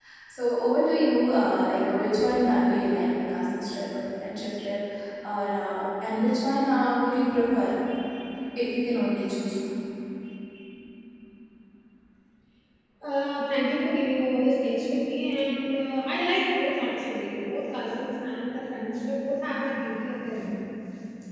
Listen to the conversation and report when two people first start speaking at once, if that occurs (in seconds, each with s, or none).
none